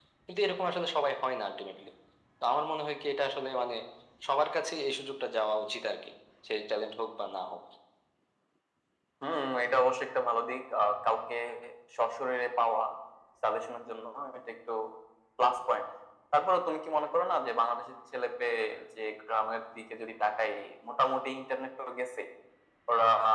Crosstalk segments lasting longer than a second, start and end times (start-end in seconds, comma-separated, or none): none